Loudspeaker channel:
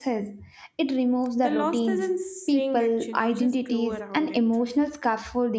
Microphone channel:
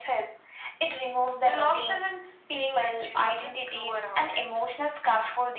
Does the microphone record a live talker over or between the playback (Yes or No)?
No